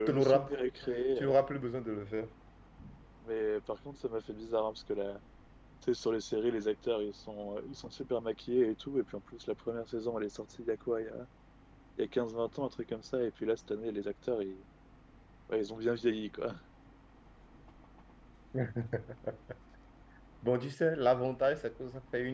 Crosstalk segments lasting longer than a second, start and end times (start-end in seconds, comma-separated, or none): none